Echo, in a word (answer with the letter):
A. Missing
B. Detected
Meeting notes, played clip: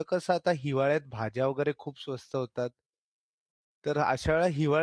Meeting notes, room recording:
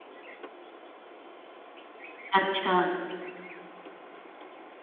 A